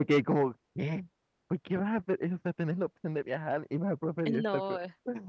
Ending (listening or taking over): taking over